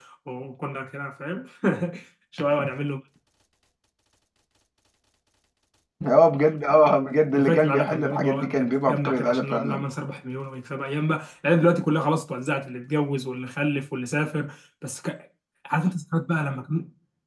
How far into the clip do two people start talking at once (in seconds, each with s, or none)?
7.3 s